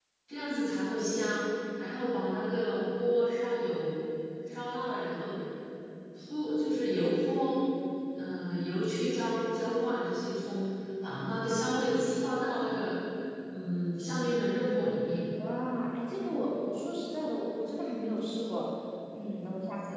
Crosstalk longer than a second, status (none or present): none